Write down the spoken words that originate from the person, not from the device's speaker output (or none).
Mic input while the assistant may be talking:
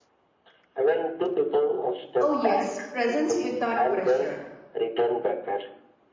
Oh, yes, presence without pressure.